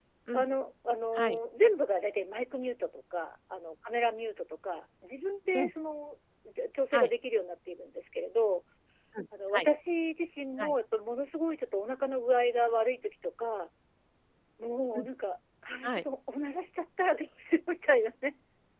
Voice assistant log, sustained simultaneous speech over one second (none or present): none